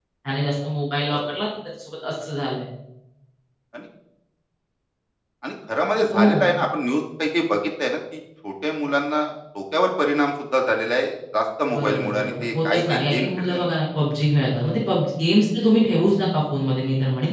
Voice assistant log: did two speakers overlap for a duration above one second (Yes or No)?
Yes